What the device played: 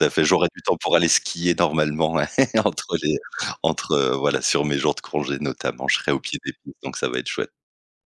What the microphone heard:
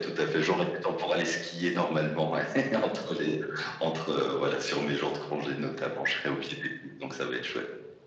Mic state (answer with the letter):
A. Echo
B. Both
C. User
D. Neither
A